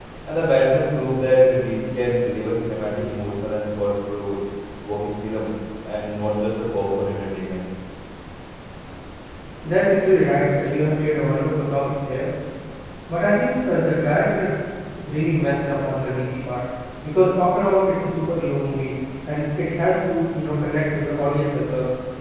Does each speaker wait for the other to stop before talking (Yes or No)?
Yes